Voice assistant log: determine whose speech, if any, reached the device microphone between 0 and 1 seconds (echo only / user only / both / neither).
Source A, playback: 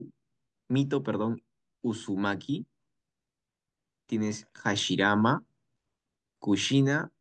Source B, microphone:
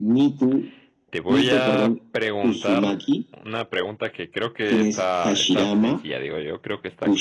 echo only